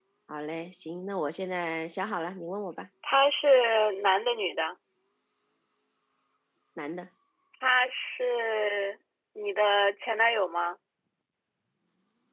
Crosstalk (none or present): none